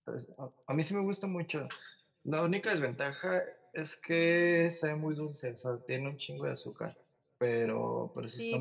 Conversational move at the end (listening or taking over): taking over